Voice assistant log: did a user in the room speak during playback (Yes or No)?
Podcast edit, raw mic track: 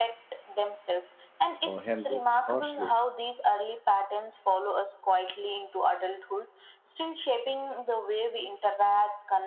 Yes